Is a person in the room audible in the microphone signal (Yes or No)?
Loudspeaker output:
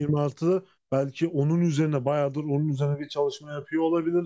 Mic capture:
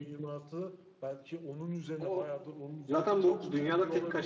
Yes